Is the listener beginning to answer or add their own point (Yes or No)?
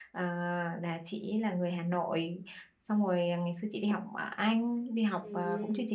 No